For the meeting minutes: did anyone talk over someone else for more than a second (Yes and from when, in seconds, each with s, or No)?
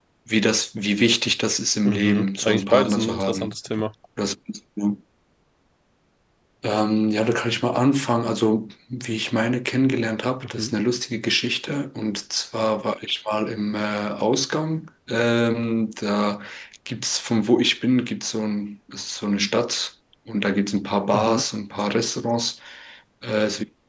Yes, from 1.8 s